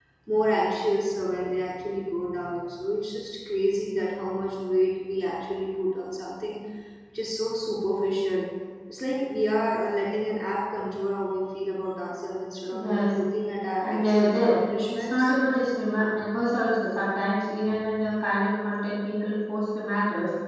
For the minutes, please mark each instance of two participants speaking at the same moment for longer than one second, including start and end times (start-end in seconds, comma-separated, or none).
13.8-15.3